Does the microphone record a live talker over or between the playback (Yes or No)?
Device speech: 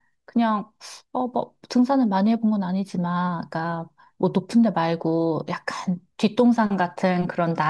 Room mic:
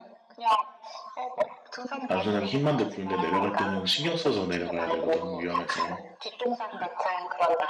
Yes